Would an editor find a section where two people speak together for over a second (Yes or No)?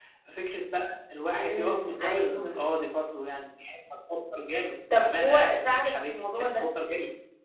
Yes